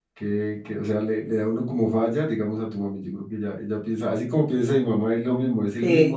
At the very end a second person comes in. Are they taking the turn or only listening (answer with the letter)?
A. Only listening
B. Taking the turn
A